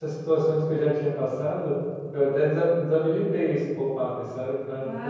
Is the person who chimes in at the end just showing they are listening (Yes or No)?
No